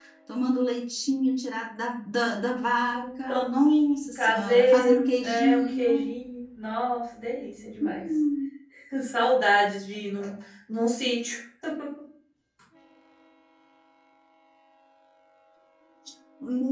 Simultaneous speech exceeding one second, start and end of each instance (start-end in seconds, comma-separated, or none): 4.2-6.1